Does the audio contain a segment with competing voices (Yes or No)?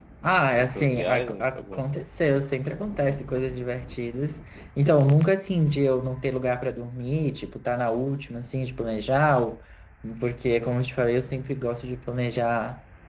Yes